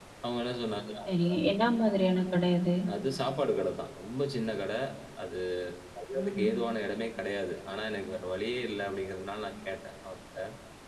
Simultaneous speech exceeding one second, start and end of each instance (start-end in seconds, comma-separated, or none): none